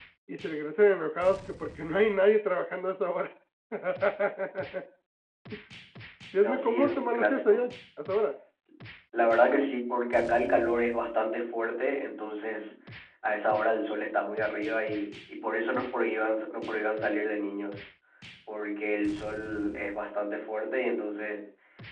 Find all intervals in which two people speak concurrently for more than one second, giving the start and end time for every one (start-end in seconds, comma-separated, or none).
6.4-7.6